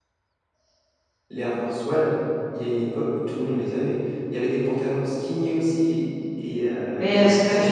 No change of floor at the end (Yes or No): No